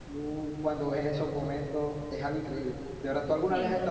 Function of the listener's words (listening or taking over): listening